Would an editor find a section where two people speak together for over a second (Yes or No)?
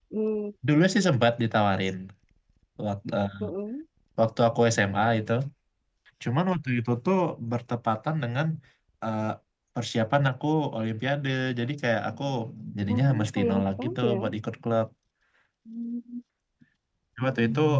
Yes